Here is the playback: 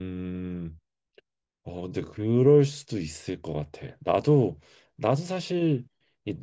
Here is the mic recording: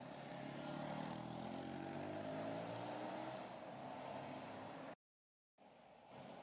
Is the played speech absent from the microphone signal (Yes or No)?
Yes